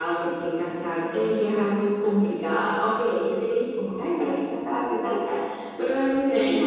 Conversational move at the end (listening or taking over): listening